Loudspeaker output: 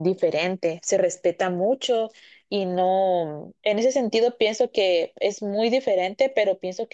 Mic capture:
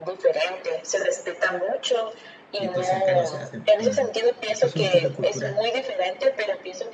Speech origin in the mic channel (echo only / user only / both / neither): both